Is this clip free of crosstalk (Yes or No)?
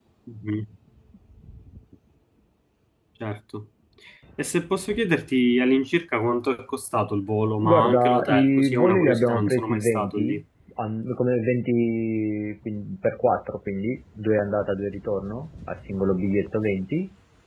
No